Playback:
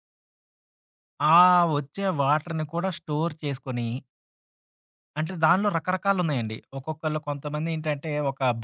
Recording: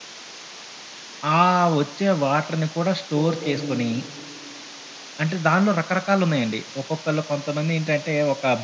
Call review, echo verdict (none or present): present